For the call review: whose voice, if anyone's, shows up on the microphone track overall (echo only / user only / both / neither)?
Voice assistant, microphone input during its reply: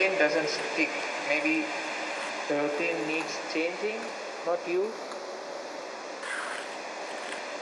echo only